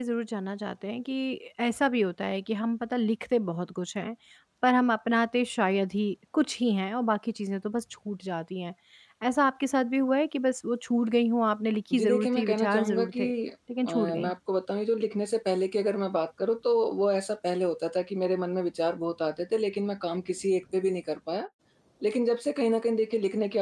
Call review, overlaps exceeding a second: present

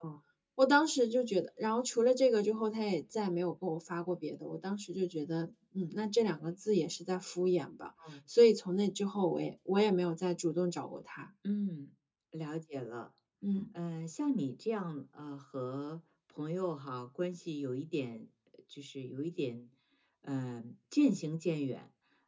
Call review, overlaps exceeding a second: none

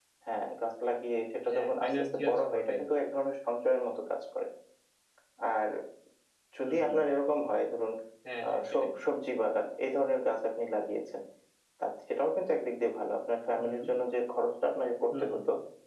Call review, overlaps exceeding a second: present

